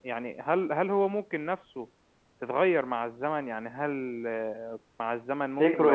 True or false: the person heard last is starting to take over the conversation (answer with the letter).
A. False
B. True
A